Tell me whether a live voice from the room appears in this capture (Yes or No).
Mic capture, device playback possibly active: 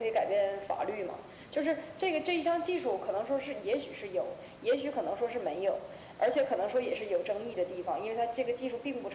No